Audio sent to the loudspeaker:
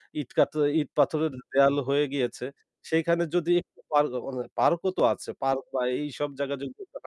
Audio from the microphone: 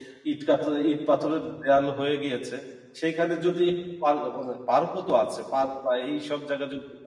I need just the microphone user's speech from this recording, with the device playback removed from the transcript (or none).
none